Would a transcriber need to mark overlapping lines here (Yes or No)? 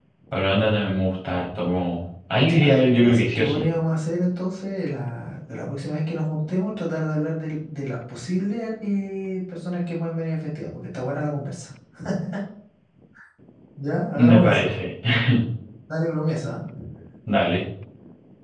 Yes